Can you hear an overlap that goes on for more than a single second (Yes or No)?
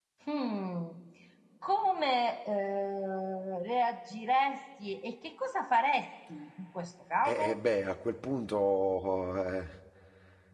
No